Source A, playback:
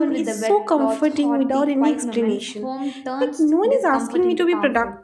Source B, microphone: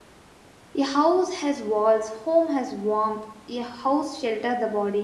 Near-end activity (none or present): present